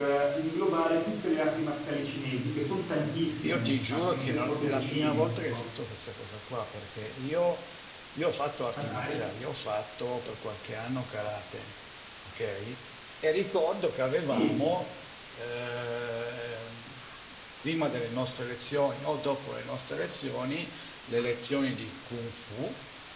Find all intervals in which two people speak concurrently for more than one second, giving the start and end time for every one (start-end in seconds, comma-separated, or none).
3.4-5.7